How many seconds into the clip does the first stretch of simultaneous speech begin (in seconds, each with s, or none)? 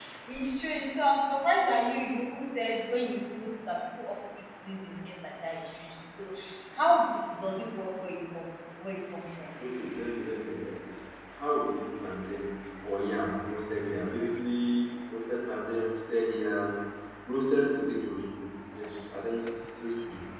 none